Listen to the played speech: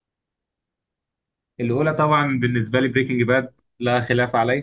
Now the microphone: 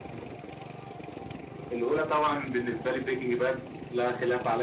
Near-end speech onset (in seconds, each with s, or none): none